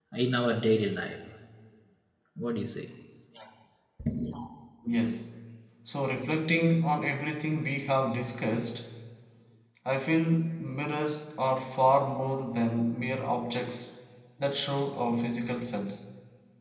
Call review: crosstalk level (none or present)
none